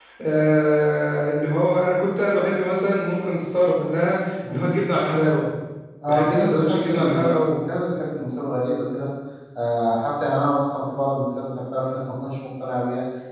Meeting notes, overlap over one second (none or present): present